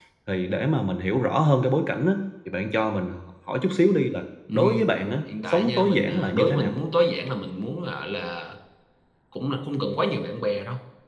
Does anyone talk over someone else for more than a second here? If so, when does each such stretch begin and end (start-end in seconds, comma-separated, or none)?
5.5-6.7